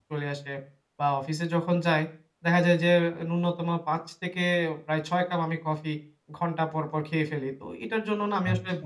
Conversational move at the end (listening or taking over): listening